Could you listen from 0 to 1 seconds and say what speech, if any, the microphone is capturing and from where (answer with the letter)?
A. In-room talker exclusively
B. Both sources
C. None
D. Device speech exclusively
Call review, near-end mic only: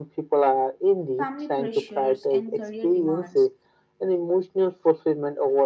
D